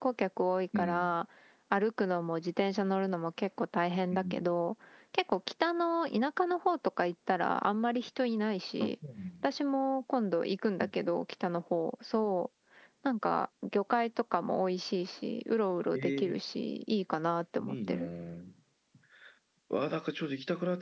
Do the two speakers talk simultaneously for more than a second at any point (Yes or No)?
No